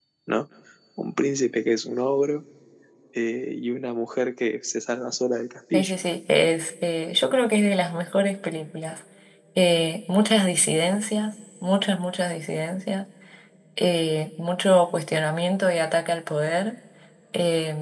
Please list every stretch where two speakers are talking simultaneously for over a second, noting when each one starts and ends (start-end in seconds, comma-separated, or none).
none